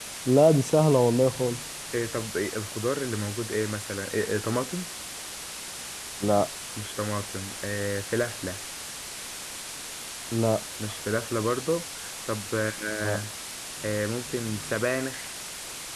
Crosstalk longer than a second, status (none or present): none